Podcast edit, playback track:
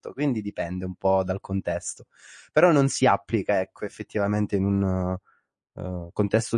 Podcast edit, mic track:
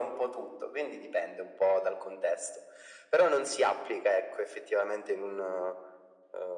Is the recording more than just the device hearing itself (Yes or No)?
No